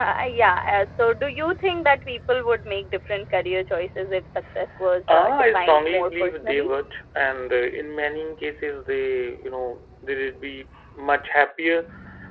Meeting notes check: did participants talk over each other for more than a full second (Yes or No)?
Yes